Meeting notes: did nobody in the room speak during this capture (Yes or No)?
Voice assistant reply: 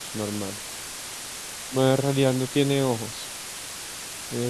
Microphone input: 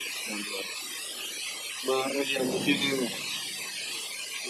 No